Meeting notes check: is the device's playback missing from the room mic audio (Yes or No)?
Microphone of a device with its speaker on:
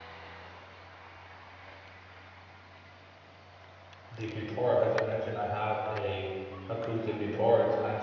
Yes